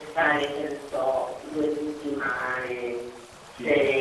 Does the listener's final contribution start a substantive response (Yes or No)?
No